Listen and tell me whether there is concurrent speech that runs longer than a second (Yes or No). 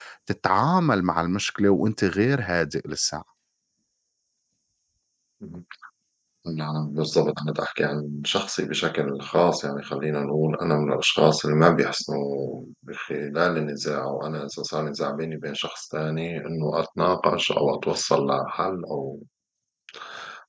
No